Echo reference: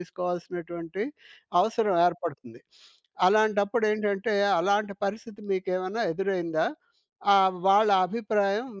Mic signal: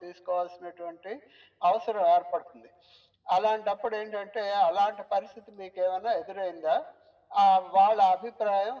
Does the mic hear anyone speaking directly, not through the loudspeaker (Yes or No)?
No